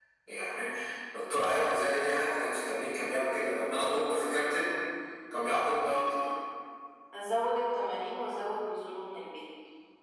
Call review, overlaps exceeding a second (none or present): none